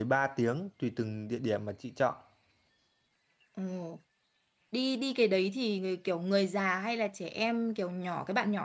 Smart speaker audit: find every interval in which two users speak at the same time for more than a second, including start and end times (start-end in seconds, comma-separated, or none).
none